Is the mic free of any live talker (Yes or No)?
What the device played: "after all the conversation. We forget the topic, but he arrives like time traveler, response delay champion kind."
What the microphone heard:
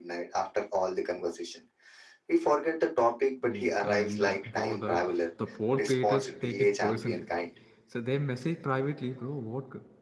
No